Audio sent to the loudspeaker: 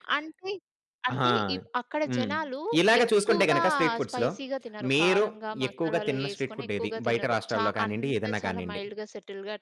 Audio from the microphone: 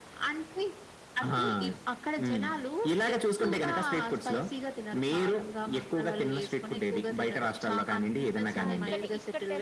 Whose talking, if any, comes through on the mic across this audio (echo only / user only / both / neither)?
both